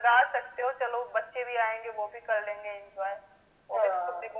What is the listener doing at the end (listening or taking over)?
listening